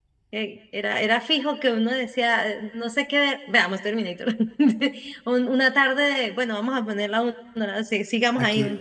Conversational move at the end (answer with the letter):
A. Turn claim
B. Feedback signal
A